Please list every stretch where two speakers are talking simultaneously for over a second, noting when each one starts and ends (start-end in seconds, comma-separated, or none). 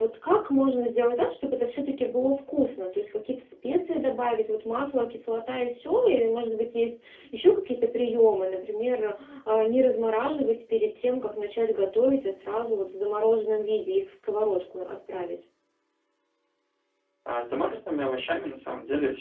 none